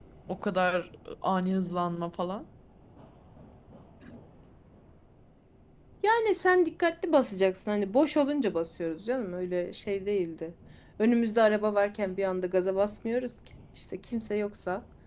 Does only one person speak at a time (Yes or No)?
Yes